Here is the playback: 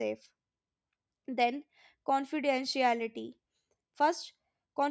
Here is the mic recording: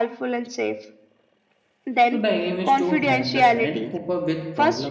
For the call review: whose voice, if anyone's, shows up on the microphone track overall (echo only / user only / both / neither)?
both